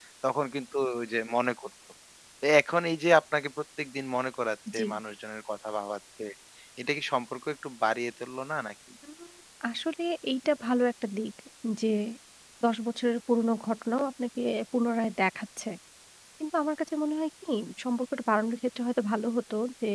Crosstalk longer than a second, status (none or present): none